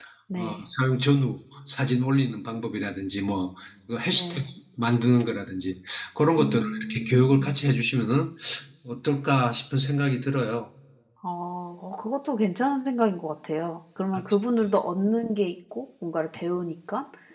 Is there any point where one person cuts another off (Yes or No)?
Yes